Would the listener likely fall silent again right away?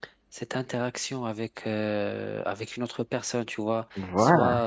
Yes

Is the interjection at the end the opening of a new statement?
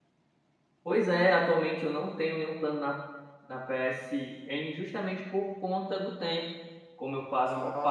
No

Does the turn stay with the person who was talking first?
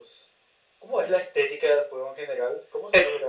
No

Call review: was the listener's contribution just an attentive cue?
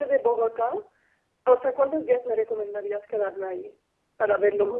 No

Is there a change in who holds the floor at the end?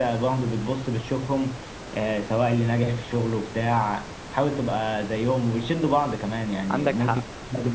No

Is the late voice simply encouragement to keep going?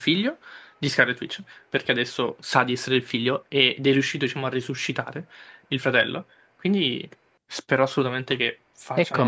No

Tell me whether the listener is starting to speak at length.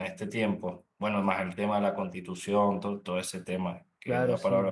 Yes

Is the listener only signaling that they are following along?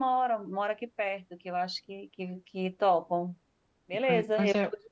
No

